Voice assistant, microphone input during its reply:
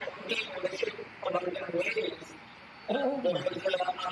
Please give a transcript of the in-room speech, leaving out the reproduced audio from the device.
Oh my god.

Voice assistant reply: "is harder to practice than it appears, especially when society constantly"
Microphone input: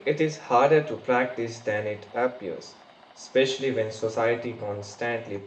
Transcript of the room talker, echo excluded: none

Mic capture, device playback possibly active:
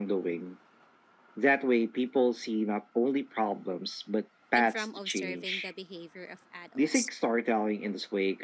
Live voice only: and from observing the behavior of adults.

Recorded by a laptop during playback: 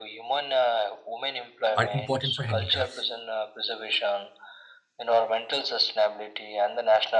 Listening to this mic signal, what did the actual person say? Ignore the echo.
are important for handicrafts.

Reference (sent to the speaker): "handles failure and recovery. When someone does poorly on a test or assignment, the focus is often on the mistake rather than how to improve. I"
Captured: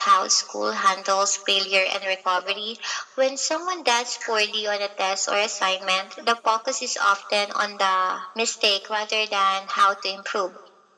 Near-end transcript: none

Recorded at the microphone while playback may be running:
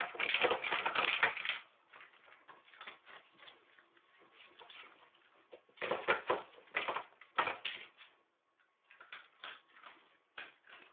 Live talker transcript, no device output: none

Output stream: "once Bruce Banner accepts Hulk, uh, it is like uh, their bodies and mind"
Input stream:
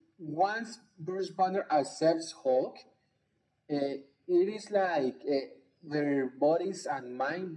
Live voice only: none

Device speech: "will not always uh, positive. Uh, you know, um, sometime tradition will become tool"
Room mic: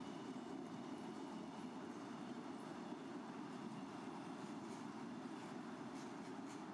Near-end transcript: none

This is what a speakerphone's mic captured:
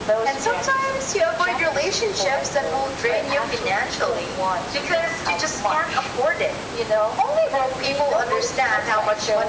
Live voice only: none

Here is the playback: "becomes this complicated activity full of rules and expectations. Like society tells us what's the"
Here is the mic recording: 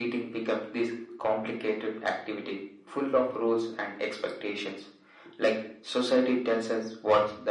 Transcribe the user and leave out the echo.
none

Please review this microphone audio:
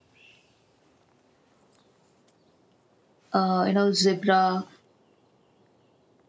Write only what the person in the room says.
uh, you know zebra

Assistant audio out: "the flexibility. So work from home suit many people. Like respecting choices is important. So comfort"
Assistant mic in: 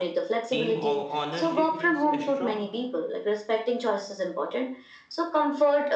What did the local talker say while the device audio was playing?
Team of ownership feels strong.

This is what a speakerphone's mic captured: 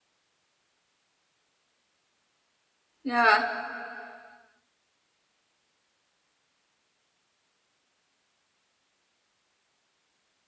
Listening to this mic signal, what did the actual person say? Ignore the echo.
yeah,

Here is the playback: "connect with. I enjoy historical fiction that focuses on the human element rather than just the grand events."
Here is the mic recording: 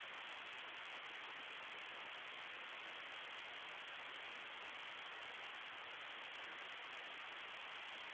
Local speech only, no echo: none

